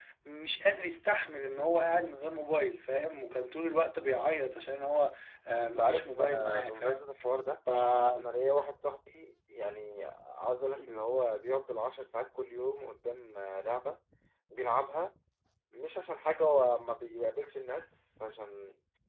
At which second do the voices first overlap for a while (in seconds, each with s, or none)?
5.6 s